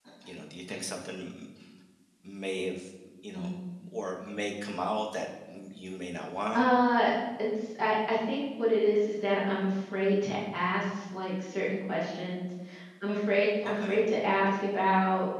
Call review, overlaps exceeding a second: none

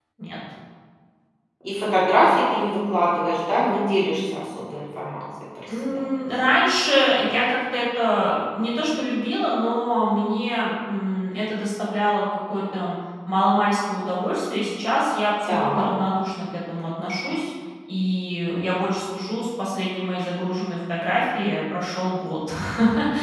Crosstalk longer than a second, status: none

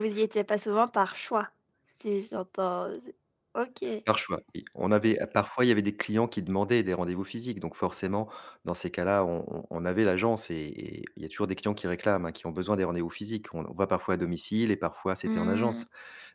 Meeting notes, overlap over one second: none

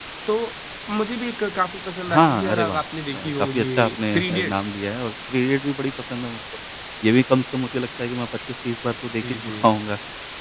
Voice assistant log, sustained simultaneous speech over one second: present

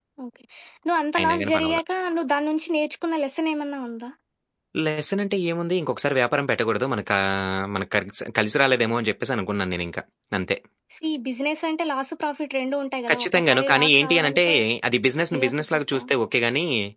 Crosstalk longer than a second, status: present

